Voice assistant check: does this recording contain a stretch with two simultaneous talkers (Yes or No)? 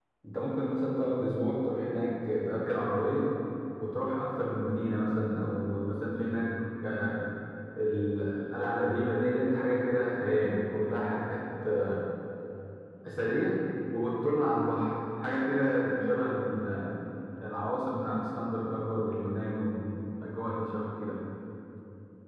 No